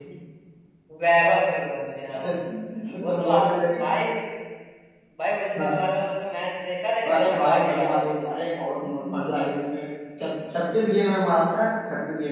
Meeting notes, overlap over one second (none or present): present